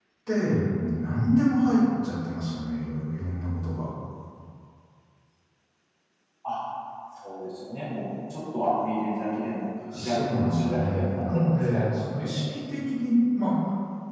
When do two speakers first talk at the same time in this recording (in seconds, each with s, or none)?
9.8 s